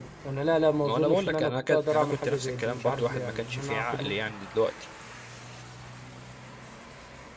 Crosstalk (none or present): present